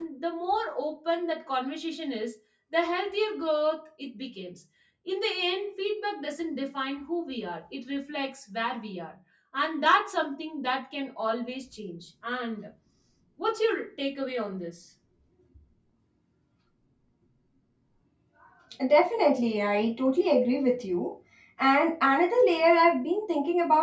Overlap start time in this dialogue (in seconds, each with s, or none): none